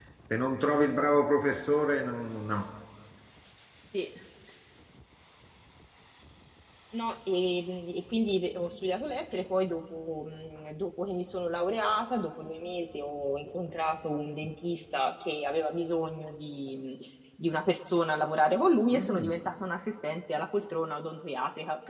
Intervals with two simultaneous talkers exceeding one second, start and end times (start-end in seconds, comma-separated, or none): none